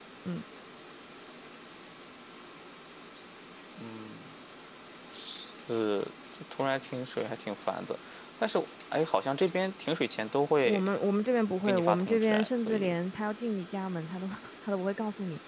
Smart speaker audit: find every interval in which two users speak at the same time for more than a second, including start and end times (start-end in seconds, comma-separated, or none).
11.6-12.9